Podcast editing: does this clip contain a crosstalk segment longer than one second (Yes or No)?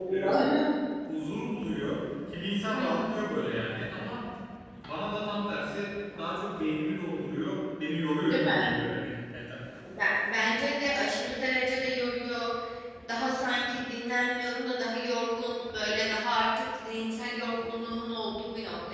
No